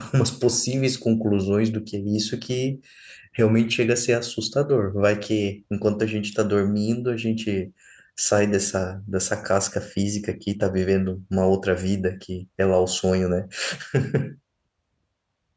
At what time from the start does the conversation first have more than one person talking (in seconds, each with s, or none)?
none